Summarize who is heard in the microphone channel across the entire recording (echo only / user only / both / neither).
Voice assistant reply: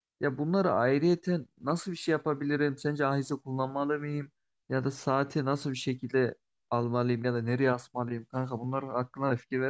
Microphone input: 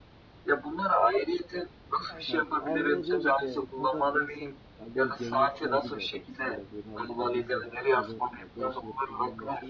both